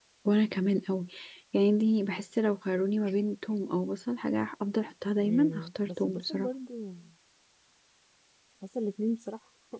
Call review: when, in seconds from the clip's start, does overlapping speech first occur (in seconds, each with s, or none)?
5.2 s